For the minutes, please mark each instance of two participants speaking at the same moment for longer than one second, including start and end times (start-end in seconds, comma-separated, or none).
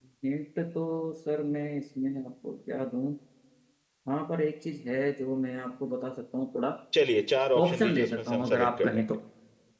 7.6-9.0